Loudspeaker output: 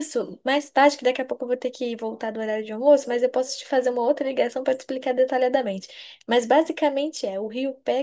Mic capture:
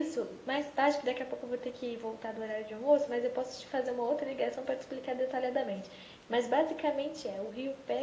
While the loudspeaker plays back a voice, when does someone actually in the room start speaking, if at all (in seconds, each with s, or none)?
none